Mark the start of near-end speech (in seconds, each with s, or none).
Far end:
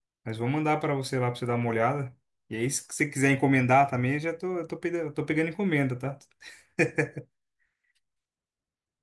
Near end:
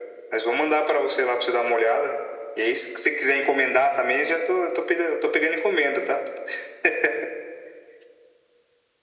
none